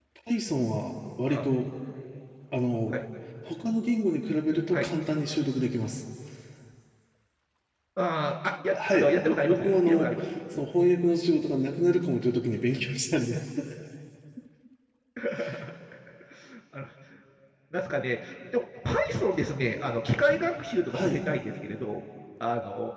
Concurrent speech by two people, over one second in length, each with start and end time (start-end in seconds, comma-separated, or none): 8.8-10.2